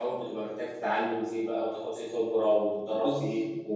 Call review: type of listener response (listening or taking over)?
listening